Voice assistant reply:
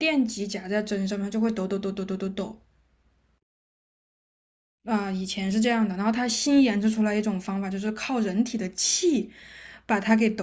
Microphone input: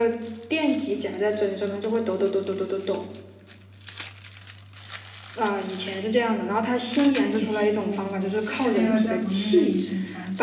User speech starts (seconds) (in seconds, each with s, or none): 6.9 s